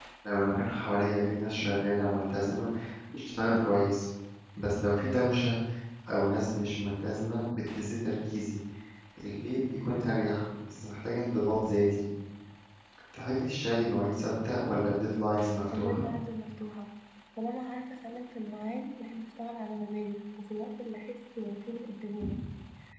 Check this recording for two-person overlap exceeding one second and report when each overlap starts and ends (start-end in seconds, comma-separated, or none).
none